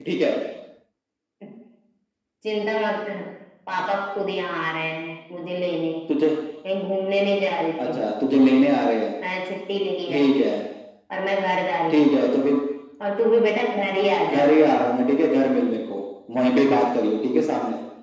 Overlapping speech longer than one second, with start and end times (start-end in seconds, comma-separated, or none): none